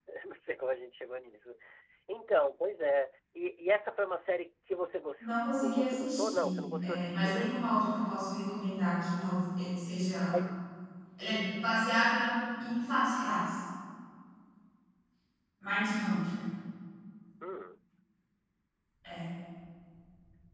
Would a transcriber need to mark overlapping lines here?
Yes, from 5.2 s

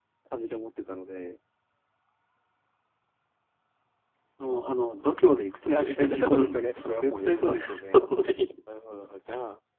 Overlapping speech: Yes, from 5.7 s

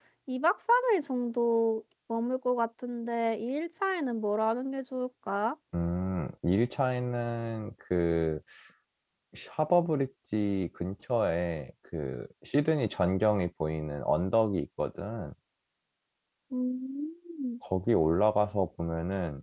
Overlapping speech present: No

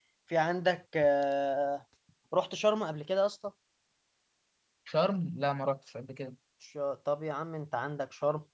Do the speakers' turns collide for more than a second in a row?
No

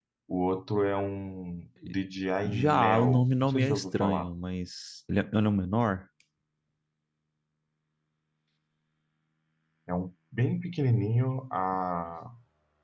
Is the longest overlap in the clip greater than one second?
Yes, from 2.4 s

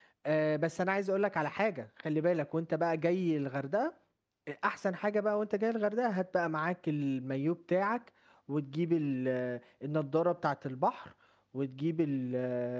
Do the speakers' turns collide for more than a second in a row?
No

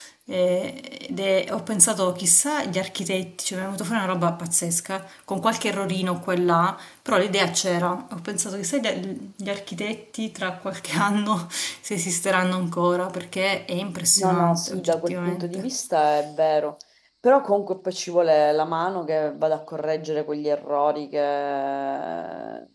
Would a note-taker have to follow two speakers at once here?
Yes, from 14.2 s

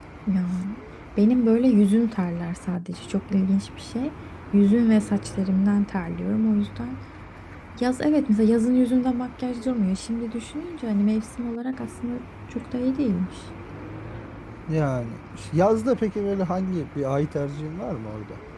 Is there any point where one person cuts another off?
No

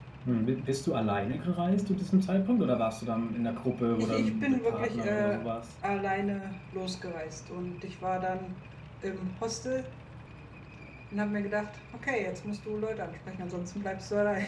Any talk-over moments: Yes, from 4.0 s

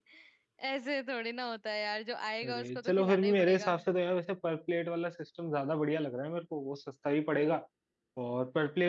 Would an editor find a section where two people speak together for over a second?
Yes, from 2.4 s

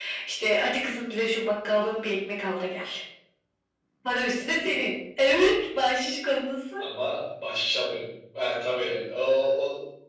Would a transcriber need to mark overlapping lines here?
No

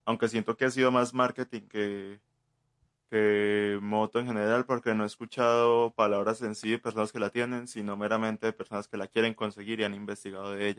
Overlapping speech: No

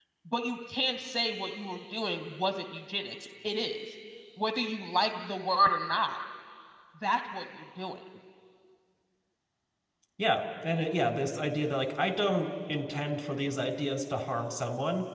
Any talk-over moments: No

